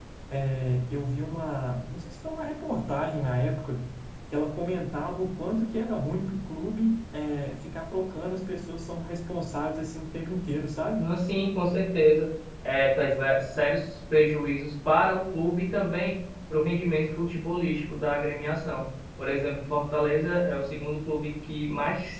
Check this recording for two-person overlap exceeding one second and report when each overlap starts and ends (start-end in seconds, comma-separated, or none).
none